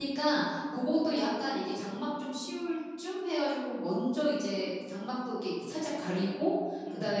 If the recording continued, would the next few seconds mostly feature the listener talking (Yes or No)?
No